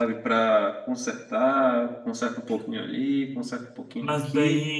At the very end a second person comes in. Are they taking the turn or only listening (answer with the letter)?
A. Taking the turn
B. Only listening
A